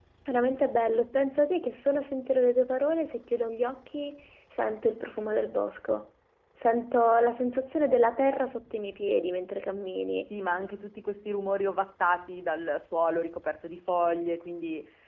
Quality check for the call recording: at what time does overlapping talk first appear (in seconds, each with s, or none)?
none